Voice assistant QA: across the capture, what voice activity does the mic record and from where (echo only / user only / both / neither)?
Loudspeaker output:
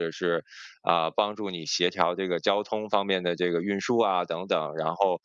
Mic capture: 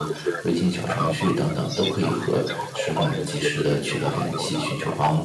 both